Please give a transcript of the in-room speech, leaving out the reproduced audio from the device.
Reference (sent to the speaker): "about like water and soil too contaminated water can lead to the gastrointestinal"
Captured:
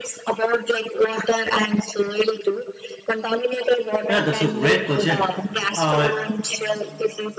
yeah that's a great question uh,

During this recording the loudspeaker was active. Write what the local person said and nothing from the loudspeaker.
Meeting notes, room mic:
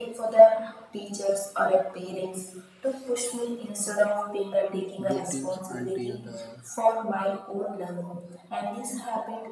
Waiting until the

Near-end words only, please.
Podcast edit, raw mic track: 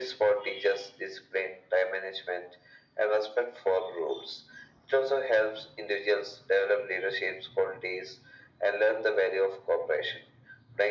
none

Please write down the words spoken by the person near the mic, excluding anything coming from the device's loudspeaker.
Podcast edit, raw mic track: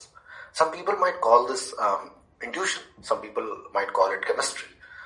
none

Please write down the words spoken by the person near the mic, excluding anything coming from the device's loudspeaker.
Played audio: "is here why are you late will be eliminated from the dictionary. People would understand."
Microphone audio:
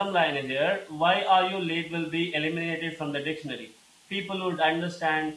none

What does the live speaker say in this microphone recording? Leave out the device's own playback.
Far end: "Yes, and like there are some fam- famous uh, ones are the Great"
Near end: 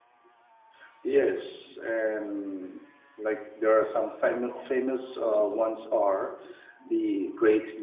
none

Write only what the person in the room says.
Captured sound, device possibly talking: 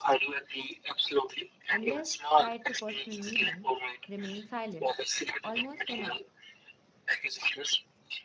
unless tied to personal meaning, remain silent, almost inert.

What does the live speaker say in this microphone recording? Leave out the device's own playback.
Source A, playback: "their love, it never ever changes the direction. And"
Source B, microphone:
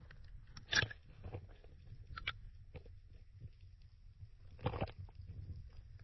none

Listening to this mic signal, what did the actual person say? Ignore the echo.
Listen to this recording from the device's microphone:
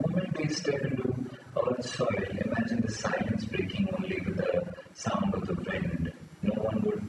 none

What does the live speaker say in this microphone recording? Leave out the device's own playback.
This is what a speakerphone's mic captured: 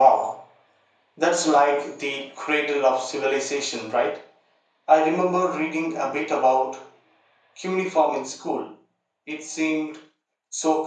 none

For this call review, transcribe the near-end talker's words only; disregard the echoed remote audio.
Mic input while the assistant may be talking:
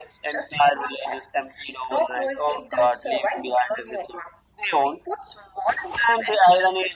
none

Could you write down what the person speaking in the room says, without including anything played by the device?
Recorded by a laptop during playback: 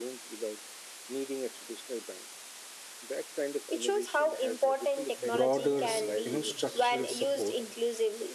broader s- you know structural support

